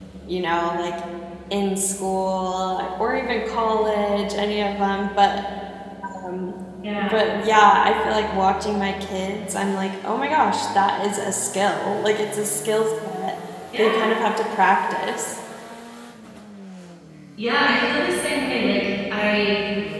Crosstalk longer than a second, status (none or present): none